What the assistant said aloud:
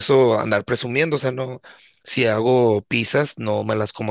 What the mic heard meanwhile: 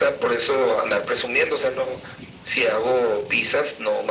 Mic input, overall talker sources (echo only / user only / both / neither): echo only